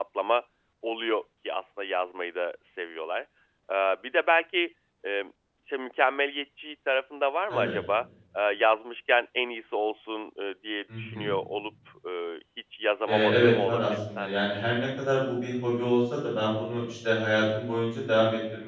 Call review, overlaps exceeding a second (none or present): present